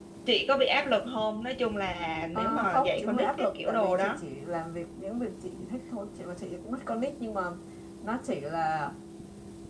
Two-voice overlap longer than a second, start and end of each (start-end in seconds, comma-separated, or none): 2.4-4.2